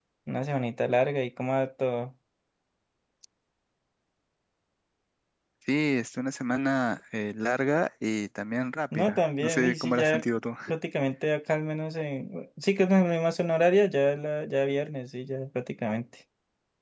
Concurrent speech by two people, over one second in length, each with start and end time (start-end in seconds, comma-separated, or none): 8.9-10.2